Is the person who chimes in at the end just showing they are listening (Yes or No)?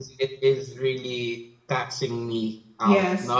Yes